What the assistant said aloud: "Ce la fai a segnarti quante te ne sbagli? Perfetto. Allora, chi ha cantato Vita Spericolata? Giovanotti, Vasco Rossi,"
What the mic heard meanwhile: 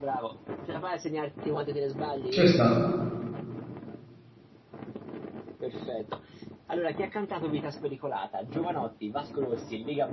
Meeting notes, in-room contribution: present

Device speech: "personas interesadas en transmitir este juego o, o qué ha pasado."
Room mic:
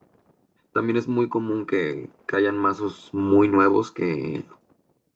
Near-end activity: present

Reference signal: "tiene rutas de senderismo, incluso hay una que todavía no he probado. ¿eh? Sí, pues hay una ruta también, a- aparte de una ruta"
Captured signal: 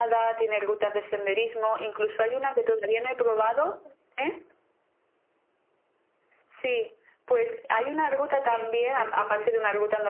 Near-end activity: present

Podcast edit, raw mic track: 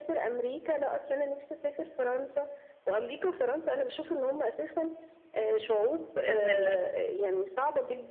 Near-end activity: present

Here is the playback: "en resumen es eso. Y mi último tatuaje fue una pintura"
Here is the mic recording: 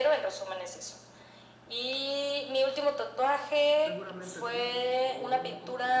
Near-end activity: present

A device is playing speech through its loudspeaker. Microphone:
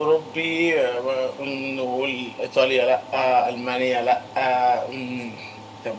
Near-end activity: none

